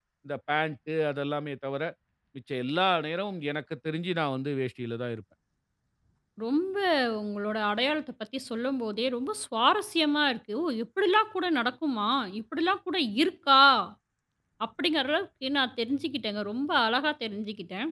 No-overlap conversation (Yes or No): Yes